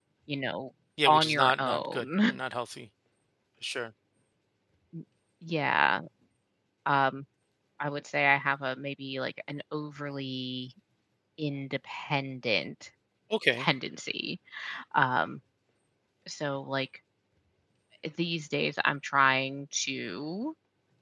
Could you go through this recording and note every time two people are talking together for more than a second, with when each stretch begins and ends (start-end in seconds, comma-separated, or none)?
1.1-2.4